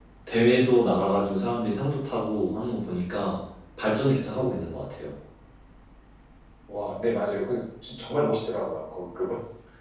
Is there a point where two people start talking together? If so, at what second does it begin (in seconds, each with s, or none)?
none